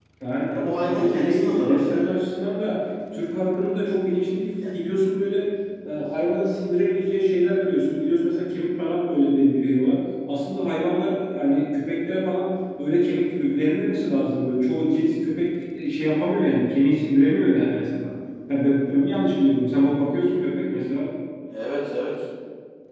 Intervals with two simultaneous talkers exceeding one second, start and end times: 0.5-2.1

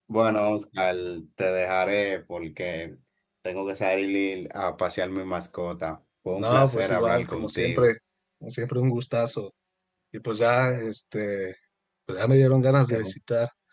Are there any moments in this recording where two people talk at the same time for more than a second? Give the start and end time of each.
6.4-7.9

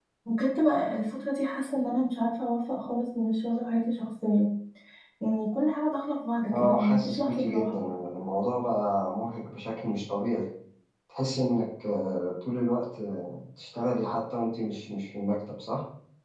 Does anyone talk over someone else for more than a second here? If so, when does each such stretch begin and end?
6.5-7.8

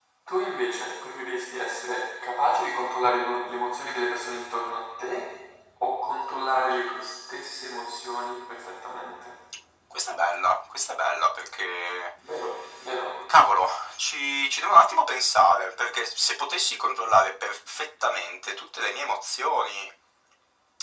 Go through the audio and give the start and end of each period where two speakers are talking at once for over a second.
none

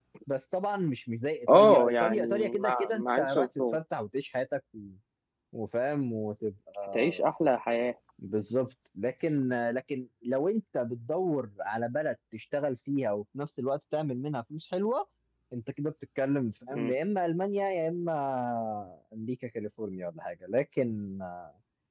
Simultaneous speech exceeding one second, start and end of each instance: 1.5-3.8

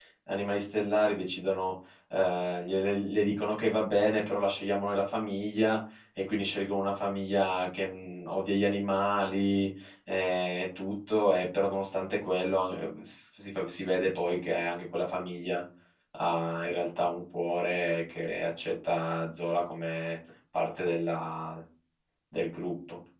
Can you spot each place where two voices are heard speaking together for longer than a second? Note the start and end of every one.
none

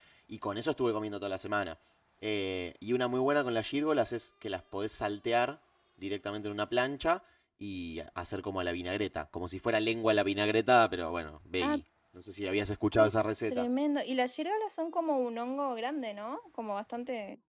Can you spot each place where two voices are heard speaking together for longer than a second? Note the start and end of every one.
none

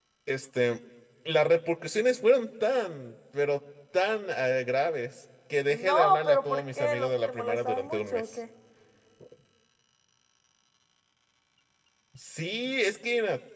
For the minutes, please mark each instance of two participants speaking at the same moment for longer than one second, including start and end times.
5.7-8.2

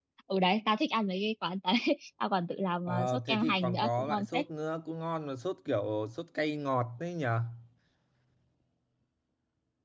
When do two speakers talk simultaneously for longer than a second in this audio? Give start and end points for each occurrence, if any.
2.9-4.4

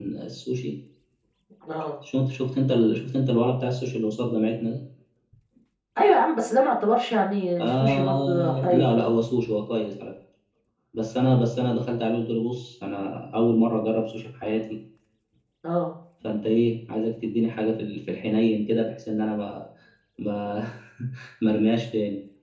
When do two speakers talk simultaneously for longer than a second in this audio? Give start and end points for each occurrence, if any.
7.6-9.0

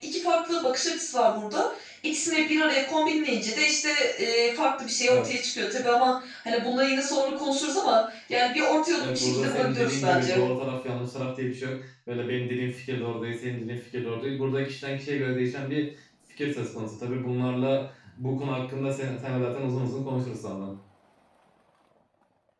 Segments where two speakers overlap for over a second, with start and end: 9.0-10.4

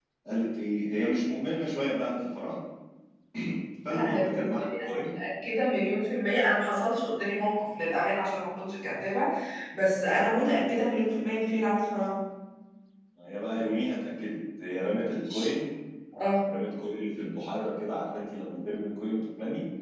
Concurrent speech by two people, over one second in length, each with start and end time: 3.9-5.1

